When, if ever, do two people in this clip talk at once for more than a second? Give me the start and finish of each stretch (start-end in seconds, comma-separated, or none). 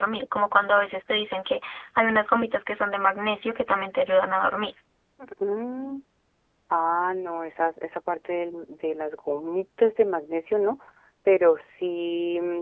none